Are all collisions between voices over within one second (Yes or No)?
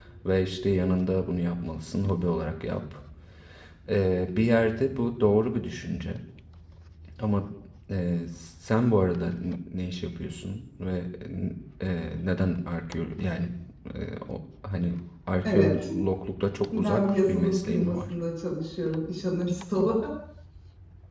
No